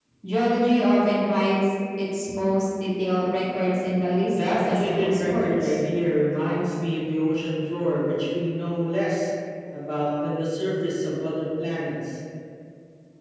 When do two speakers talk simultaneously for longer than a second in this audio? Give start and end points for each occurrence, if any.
4.2-5.8

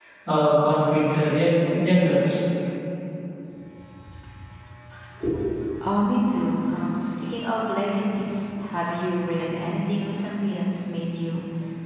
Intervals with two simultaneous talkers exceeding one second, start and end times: none

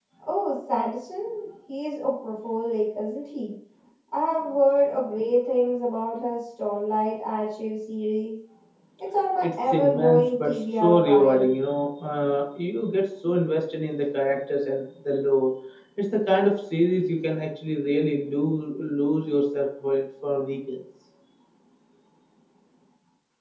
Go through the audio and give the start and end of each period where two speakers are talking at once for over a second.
9.4-11.4

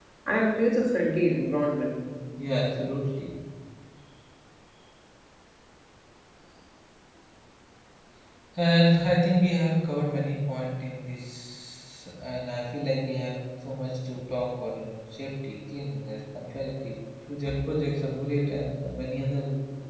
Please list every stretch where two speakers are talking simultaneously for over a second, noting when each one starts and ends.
none

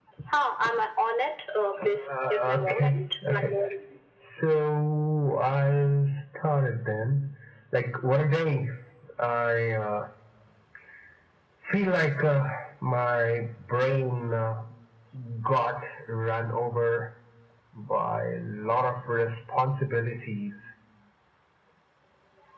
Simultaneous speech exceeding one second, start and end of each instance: 1.8-3.5

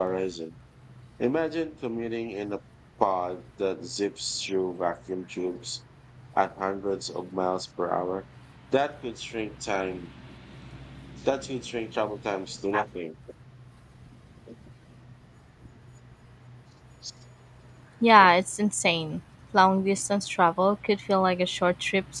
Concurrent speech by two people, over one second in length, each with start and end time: none

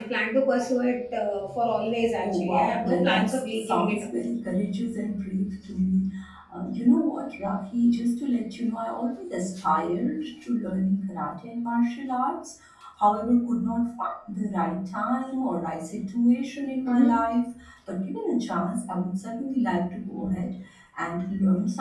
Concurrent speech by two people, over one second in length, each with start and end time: 2.2-4.0

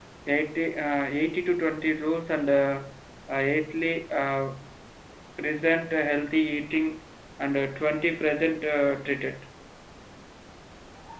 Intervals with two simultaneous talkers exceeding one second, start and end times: none

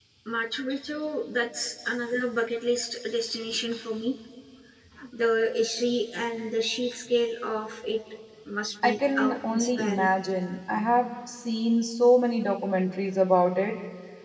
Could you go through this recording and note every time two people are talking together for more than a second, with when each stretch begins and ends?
8.8-10.1

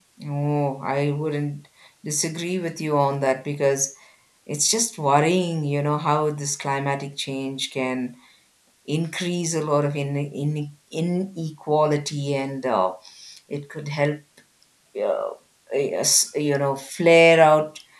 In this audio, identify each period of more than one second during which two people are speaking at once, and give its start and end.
none

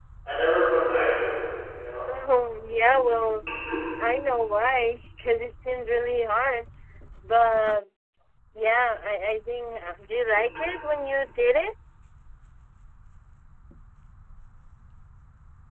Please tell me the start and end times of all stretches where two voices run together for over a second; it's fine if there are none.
none

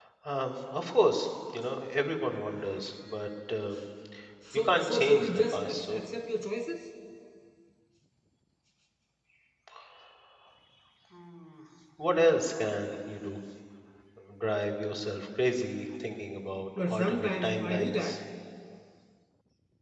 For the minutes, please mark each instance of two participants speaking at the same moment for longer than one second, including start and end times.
4.5-6.0, 16.8-18.2

